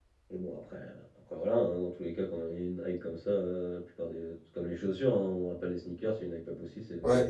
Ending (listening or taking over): taking over